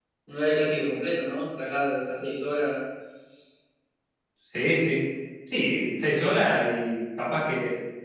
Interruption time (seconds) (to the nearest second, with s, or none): none